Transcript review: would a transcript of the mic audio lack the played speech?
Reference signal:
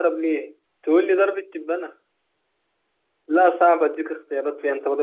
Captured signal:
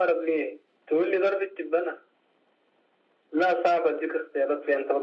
No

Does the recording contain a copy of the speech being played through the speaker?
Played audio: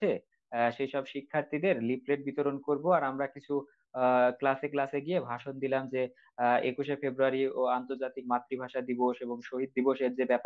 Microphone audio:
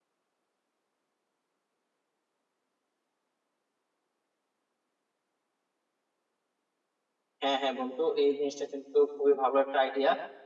No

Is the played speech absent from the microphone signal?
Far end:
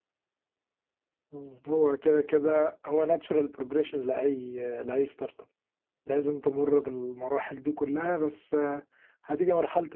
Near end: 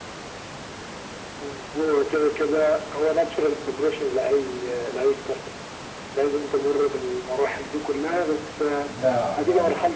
No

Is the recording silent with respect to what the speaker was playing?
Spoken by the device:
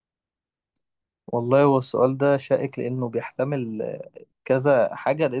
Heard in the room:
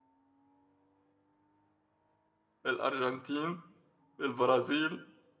Yes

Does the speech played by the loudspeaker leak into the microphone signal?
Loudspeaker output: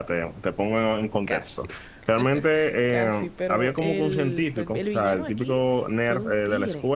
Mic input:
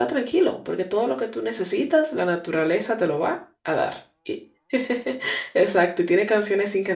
No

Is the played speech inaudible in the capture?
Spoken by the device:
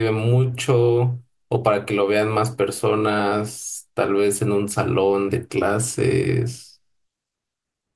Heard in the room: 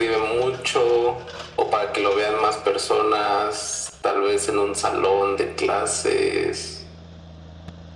No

